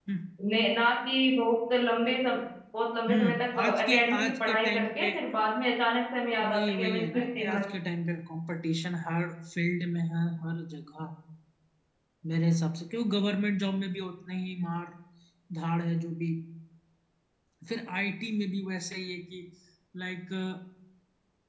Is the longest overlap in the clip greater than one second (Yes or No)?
Yes